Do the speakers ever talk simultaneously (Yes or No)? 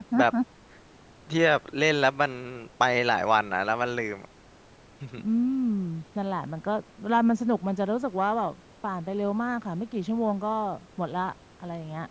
No